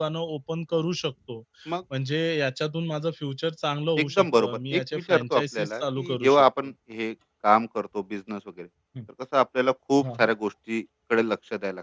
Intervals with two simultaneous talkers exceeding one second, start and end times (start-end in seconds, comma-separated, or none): 4.0-6.4